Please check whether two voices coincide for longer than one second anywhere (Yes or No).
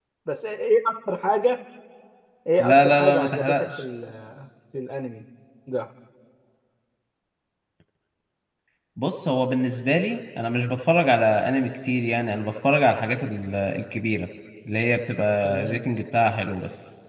Yes